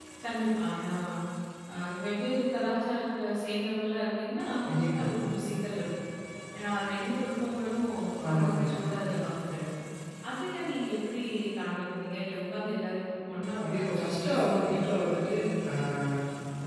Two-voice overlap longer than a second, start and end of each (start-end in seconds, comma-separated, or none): 13.6-14.8